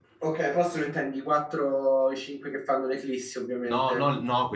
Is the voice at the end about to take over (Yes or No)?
Yes